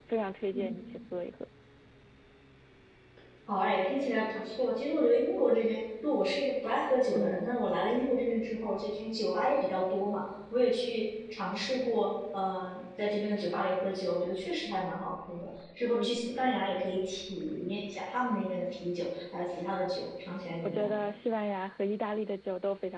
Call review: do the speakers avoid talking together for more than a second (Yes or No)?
Yes